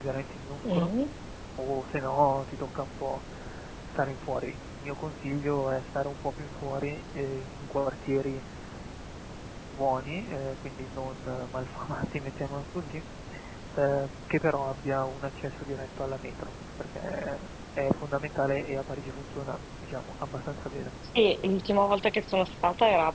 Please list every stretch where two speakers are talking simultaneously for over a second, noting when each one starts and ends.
none

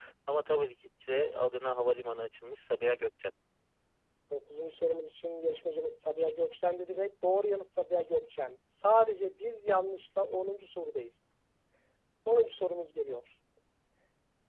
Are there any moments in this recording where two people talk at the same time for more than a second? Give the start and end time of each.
none

